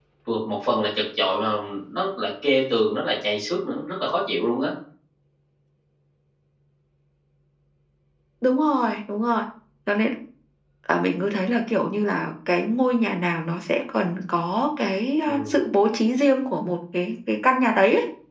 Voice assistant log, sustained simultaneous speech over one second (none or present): none